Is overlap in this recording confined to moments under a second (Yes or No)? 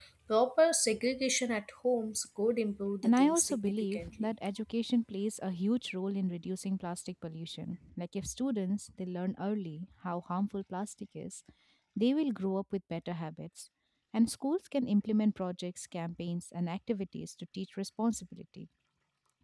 No